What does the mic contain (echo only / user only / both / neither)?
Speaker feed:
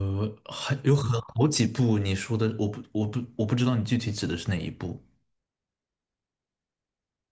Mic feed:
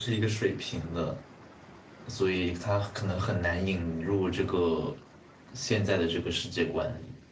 user only